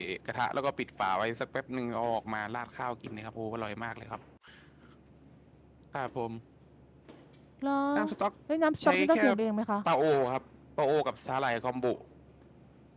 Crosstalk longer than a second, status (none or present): none